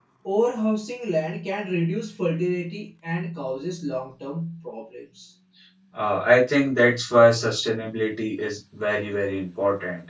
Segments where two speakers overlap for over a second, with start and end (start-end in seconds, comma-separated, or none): none